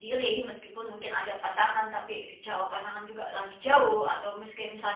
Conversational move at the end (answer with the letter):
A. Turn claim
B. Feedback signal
B